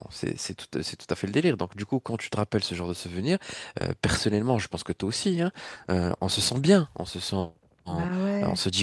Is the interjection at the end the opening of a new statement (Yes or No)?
No